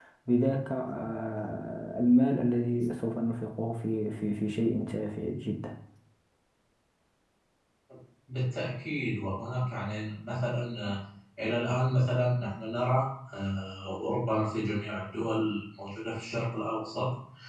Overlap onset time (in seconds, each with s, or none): none